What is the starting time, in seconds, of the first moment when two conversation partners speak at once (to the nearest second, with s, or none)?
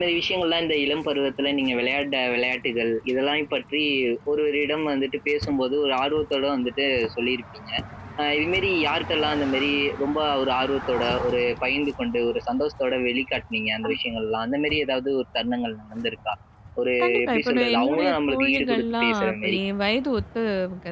17 s